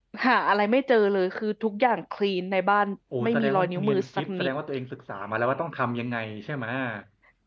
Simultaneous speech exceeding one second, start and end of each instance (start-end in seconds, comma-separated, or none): 3.2-4.5